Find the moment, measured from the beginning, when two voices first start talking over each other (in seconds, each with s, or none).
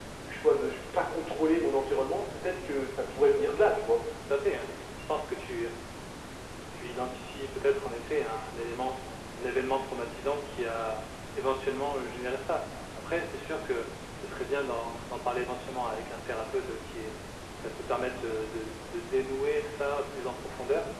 none